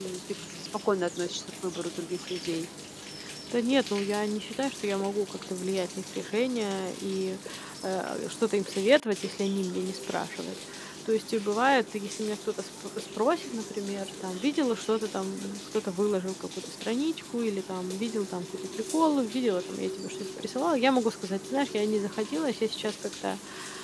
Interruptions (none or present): none